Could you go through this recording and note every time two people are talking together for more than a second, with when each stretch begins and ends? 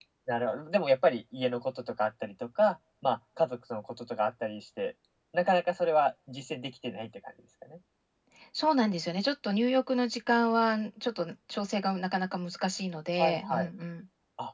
none

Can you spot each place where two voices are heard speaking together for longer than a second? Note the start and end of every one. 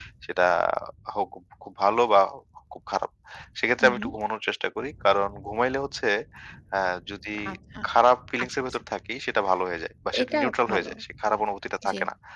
10.2-11.5

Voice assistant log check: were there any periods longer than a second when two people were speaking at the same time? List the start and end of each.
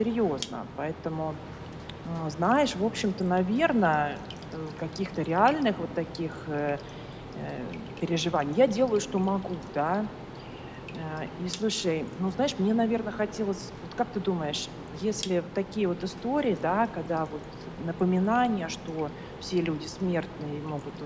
none

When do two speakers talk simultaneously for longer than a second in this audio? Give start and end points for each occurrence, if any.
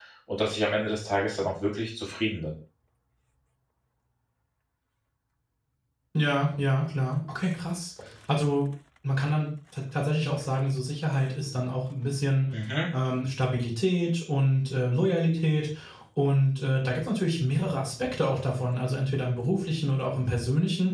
none

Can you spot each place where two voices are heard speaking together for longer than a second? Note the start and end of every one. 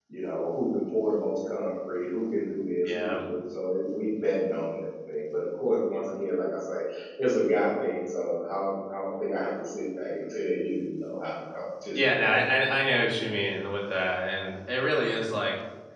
none

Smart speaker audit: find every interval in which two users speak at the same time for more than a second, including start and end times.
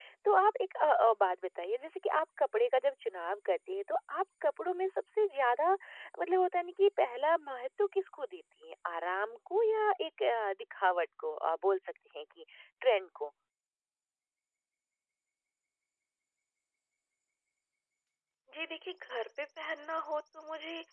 none

